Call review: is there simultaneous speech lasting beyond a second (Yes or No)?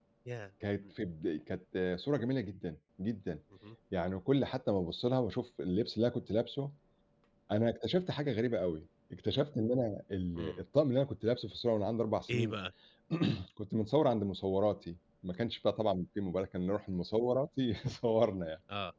No